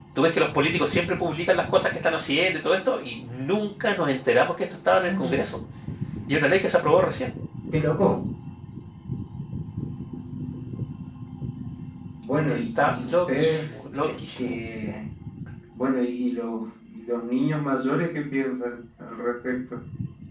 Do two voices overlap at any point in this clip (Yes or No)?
Yes